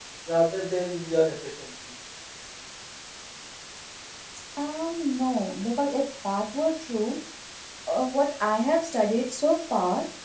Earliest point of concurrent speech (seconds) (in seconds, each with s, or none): none